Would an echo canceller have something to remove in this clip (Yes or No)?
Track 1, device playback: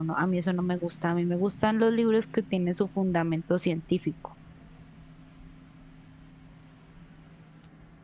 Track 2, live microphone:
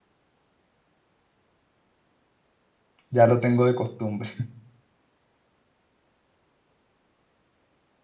No